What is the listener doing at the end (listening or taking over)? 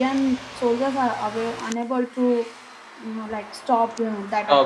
taking over